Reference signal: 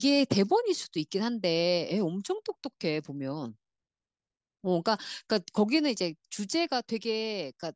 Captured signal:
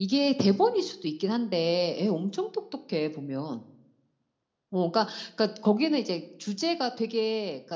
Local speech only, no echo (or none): none